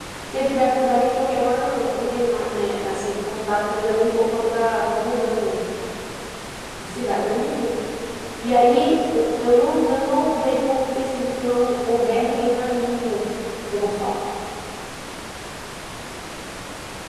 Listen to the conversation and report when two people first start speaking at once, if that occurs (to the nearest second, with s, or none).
none